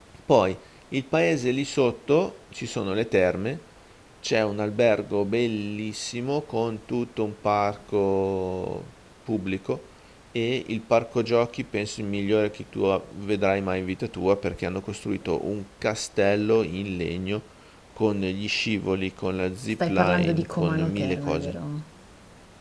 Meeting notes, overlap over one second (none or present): present